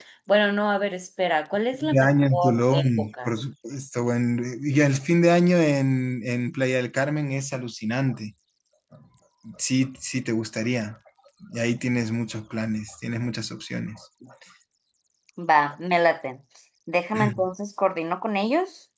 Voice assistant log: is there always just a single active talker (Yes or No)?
No